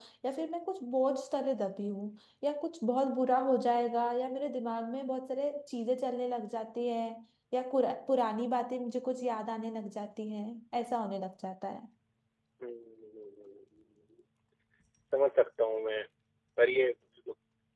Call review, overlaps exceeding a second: none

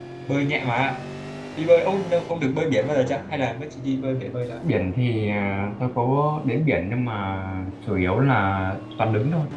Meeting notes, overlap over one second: none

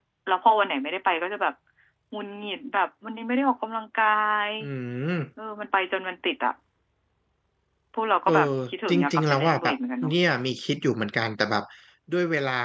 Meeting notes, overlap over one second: present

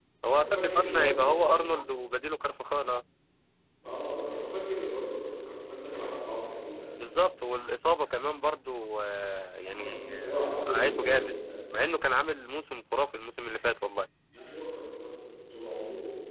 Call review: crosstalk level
present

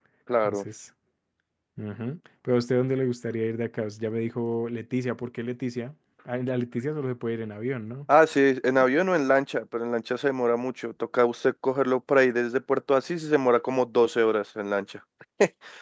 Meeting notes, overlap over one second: none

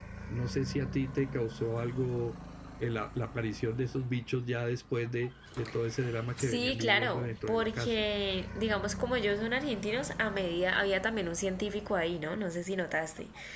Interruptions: present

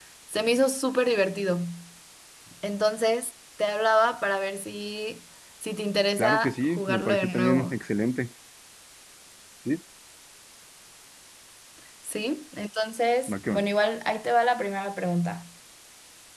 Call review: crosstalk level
present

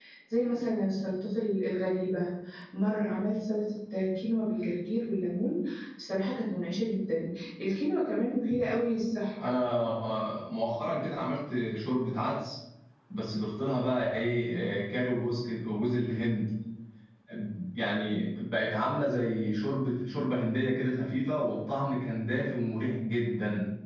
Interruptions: none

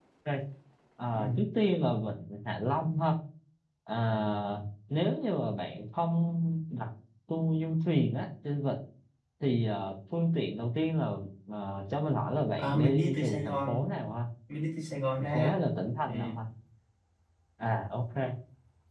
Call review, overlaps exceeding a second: present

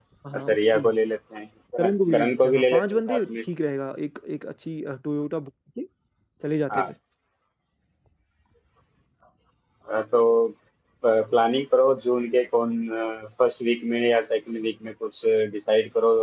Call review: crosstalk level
present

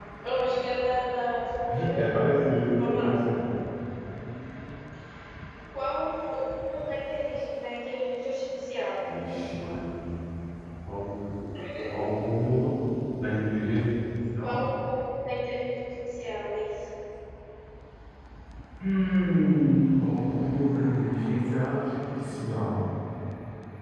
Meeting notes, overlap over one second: none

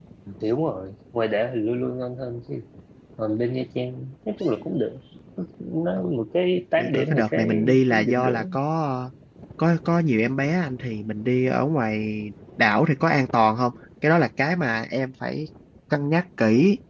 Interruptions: present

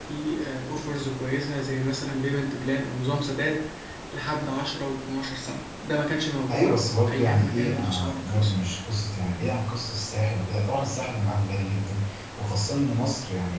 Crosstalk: present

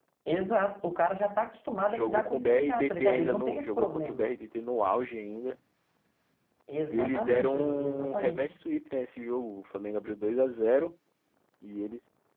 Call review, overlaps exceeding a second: present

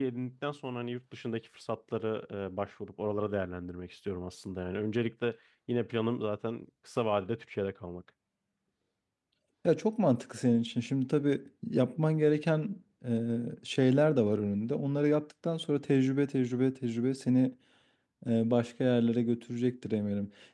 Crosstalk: none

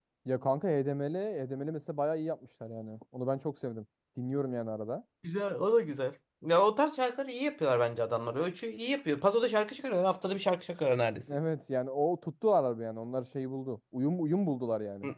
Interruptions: none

